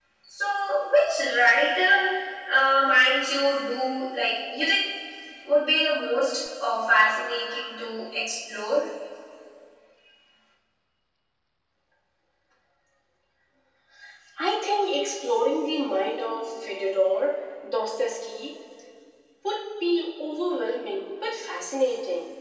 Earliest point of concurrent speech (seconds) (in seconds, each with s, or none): none